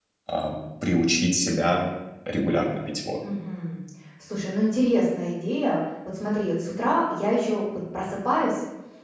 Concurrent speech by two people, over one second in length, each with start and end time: none

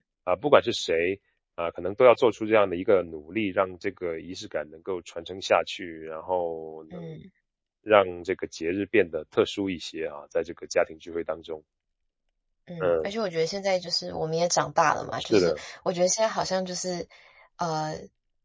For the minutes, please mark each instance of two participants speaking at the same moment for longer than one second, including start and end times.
none

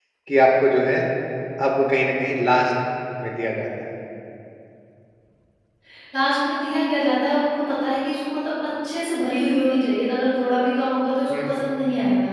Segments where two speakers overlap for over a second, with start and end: none

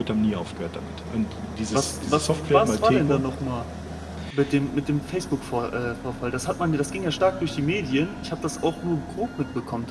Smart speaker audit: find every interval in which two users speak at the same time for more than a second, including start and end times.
1.7-3.2

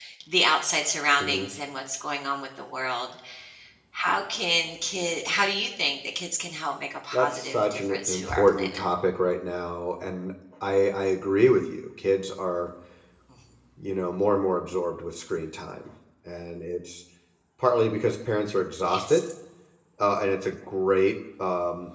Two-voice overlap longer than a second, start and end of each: 7.1-8.8

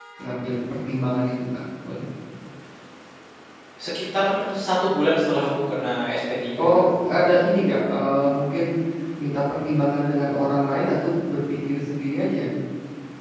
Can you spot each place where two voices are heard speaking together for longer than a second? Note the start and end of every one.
none

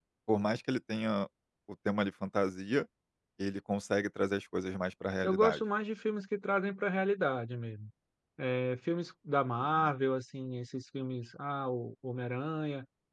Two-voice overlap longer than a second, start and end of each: none

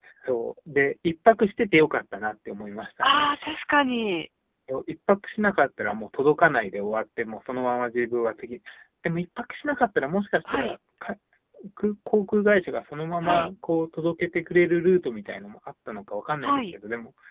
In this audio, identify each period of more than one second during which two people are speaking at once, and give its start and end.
none

